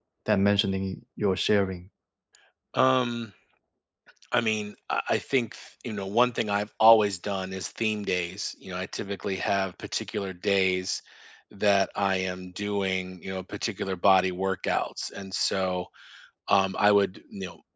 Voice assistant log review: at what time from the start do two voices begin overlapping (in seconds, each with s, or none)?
none